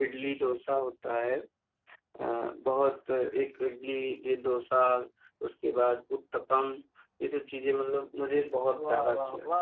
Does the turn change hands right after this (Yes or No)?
Yes